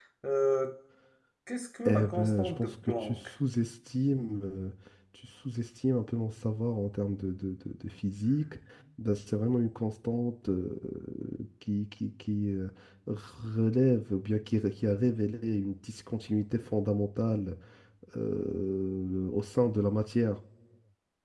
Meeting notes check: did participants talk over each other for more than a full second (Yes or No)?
Yes